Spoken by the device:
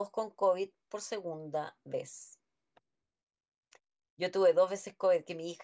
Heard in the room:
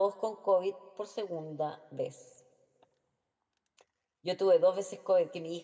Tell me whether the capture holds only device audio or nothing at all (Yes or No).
Yes